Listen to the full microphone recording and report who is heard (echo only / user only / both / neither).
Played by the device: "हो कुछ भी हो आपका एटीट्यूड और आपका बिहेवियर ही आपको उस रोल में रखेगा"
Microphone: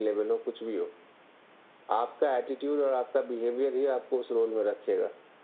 echo only